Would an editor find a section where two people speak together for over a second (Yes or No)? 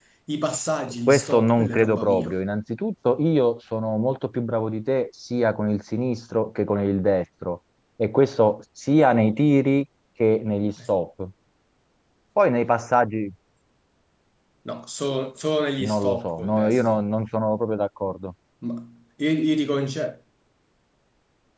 Yes